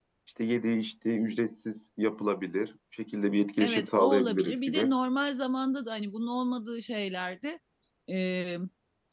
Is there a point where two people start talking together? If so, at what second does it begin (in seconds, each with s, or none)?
3.6 s